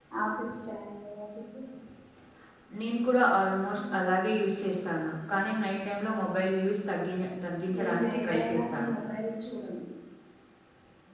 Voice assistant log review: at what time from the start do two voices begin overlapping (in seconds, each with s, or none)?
7.7 s